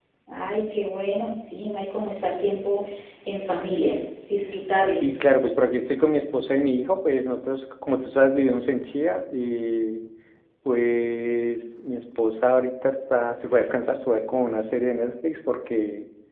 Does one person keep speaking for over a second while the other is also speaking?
No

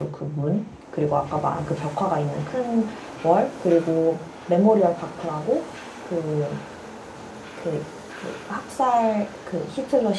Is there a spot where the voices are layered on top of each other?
No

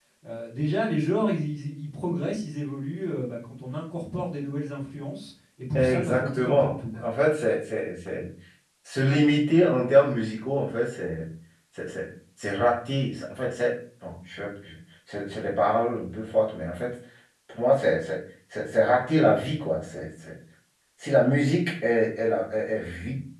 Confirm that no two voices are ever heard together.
No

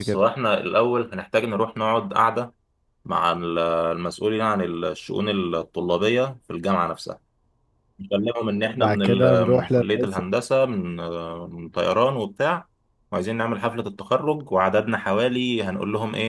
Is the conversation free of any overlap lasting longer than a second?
No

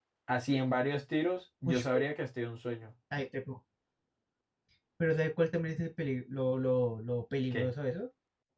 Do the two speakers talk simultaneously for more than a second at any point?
No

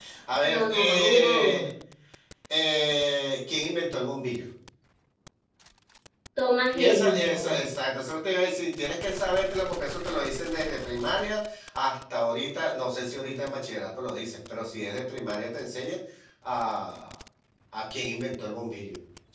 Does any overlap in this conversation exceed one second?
Yes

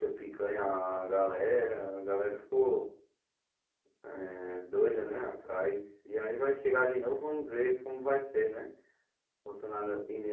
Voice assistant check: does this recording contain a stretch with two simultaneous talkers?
No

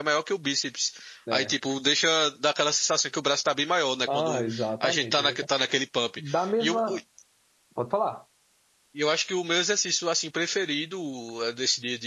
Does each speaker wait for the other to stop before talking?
No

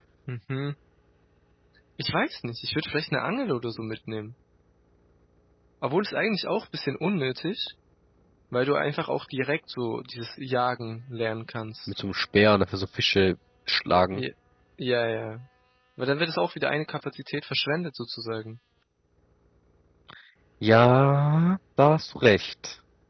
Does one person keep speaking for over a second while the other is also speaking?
No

